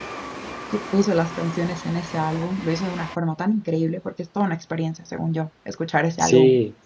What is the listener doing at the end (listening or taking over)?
taking over